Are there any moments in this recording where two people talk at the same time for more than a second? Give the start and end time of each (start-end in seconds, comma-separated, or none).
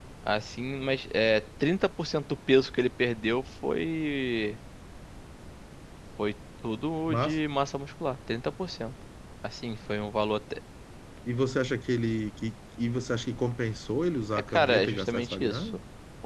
14.3-15.7